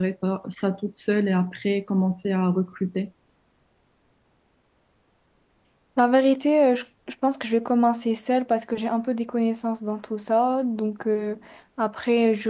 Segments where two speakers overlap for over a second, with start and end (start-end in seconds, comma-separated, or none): none